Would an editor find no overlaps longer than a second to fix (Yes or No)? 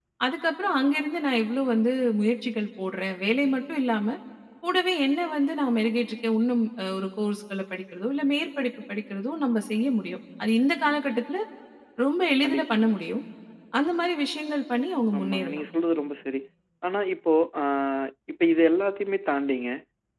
Yes